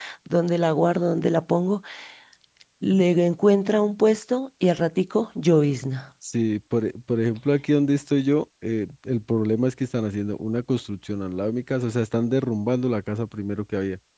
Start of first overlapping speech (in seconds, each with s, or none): none